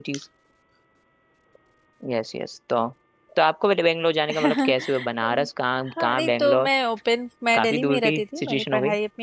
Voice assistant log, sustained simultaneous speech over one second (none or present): present